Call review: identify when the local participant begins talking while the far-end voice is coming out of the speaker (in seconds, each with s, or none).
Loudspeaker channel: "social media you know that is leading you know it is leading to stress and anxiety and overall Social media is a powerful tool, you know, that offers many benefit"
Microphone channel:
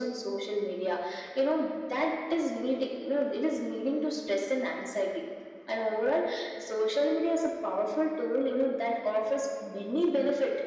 none